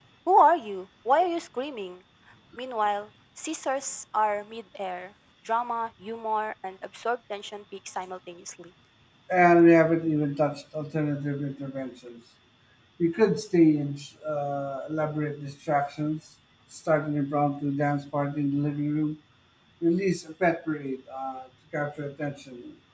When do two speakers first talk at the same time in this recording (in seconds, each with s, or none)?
none